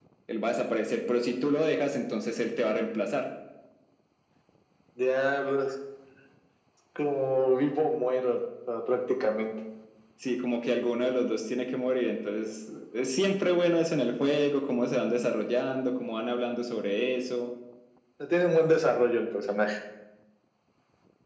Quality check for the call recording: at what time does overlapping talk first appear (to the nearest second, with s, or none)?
none